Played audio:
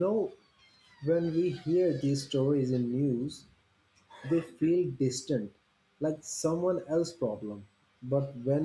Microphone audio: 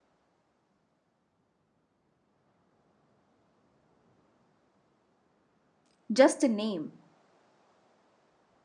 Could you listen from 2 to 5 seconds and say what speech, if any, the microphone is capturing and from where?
neither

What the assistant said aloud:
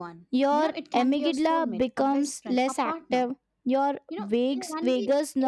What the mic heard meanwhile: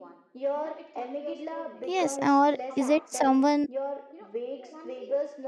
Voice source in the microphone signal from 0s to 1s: echo only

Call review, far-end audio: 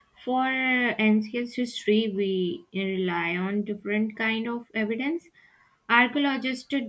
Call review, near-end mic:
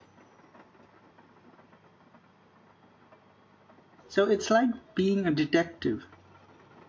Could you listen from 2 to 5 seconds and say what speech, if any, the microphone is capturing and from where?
user only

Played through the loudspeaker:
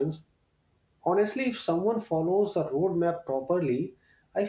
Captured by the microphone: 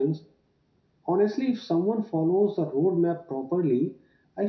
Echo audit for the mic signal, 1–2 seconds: echo only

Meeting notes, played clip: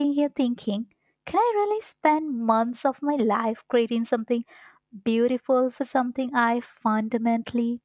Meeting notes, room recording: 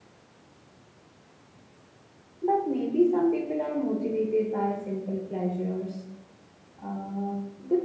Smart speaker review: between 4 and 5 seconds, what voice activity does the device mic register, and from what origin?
user only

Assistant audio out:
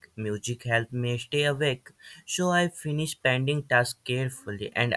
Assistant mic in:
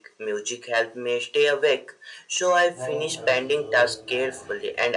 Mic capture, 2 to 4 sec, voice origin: both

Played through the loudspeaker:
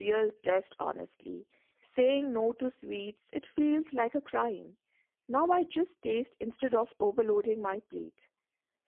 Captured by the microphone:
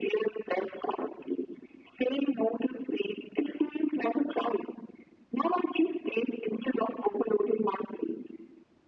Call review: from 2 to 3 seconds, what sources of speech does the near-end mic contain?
echo only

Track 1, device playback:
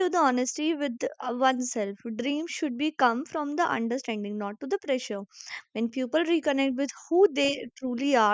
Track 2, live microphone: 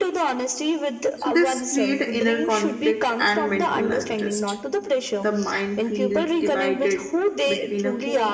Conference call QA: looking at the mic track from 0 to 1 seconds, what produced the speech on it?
echo only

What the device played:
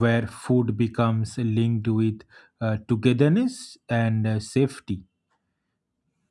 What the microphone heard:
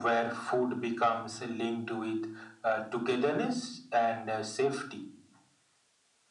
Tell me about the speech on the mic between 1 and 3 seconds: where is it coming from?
echo only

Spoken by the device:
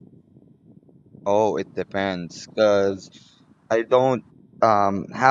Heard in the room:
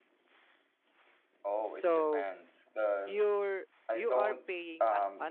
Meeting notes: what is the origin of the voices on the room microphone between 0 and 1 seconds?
neither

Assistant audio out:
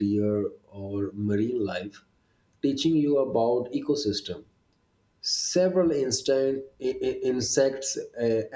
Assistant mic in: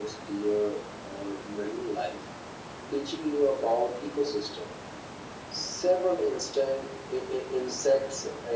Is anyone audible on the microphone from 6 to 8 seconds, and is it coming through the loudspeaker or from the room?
echo only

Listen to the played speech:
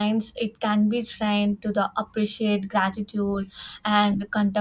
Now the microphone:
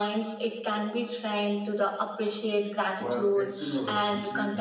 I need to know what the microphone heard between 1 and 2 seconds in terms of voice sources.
echo only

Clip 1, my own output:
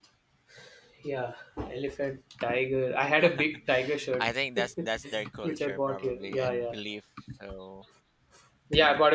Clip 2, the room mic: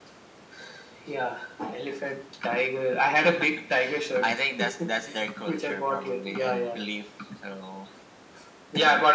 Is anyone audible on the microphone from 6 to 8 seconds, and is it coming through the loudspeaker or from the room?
echo only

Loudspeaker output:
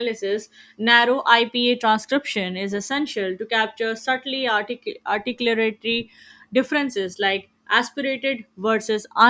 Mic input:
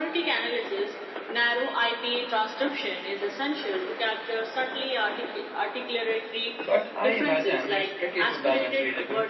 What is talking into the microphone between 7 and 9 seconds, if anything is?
both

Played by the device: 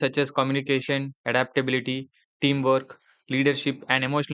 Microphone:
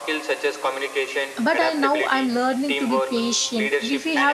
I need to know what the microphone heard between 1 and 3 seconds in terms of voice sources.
both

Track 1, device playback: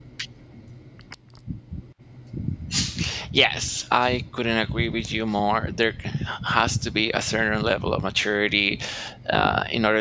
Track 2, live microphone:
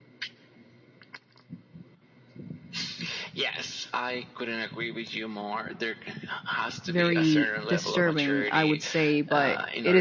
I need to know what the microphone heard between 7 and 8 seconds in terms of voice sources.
both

